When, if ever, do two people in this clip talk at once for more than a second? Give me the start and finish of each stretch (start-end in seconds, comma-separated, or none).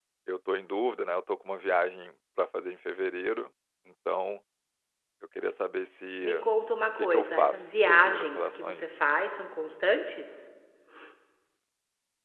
7.0-8.9